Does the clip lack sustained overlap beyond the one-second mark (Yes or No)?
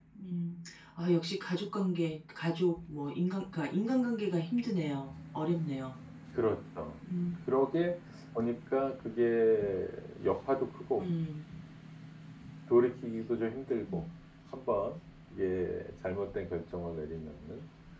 Yes